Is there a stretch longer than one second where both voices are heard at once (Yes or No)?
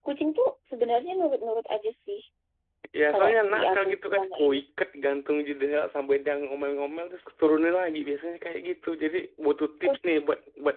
Yes